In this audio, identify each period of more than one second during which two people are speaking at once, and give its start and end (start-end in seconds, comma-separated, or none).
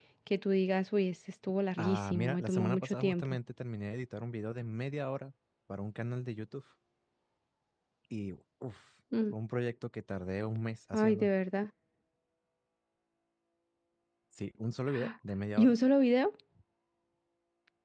1.8-3.4